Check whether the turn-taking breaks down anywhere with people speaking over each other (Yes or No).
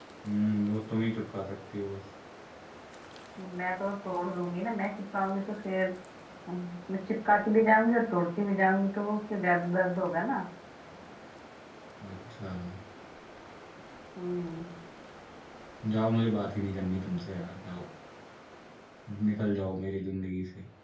No